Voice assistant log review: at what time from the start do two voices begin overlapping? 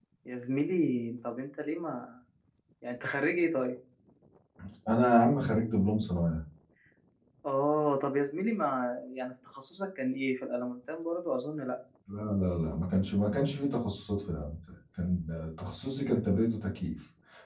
none

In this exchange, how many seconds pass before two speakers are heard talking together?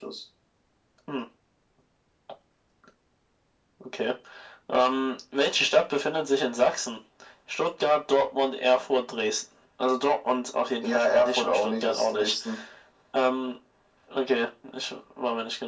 10.8 s

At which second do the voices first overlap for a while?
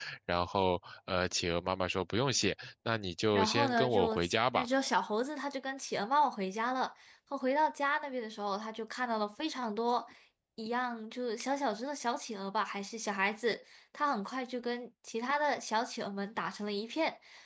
3.3 s

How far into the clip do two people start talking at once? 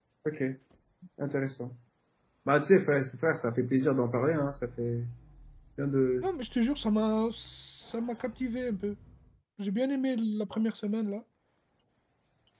none

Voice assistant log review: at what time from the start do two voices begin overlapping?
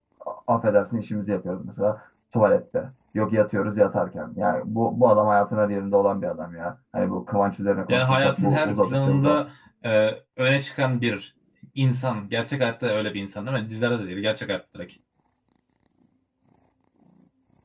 7.9 s

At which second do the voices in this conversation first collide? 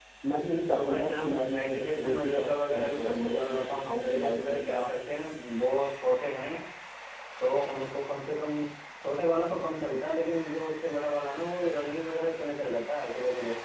0.7 s

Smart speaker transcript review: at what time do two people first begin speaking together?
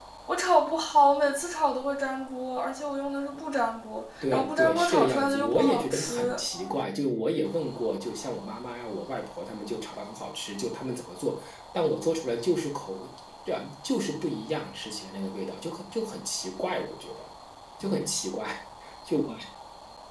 4.2 s

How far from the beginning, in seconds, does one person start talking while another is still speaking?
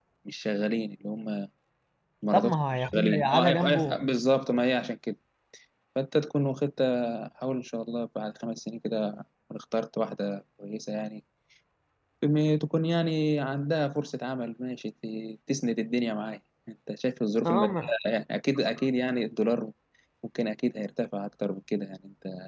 2.3 s

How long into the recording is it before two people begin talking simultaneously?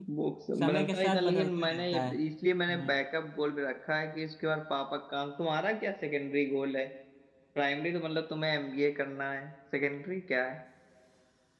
0.6 s

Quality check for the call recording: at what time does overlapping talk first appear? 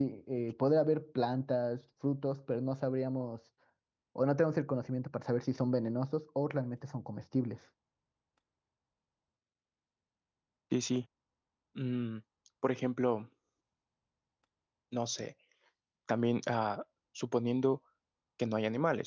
none

